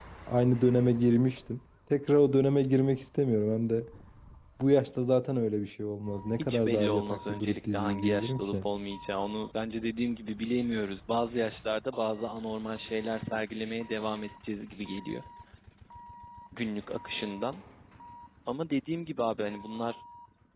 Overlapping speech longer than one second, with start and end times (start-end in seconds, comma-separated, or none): 6.3-8.7